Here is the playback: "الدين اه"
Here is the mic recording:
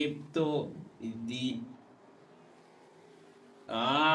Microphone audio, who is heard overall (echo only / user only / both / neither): both